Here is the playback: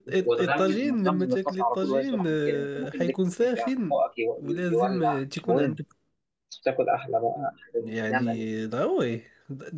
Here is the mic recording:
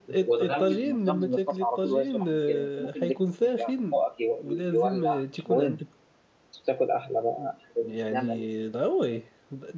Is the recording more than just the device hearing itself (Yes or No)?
No